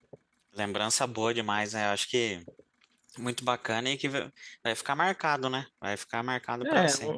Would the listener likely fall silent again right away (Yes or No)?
No